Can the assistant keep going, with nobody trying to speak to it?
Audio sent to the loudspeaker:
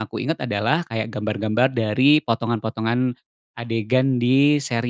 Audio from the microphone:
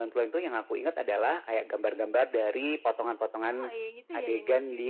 No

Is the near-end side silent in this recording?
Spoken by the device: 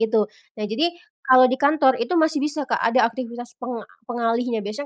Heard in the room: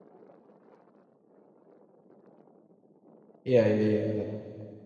No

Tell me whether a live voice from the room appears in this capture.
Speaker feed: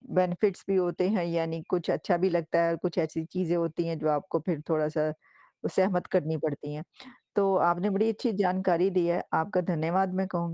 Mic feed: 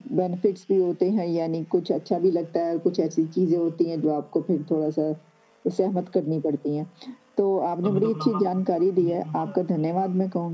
Yes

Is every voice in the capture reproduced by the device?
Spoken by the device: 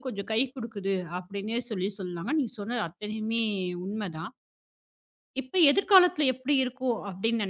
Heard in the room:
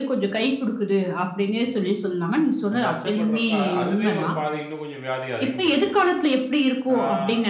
No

